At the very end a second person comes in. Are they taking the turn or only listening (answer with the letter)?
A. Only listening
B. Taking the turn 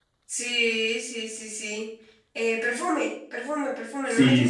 B